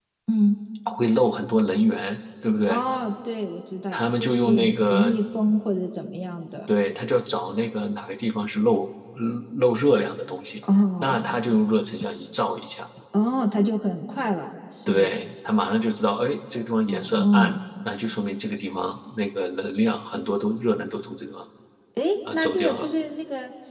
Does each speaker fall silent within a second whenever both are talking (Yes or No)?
No